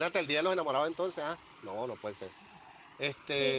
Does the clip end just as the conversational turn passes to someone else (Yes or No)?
Yes